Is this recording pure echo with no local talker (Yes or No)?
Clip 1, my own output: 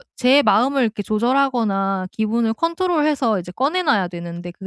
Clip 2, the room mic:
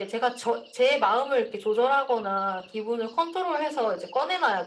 Yes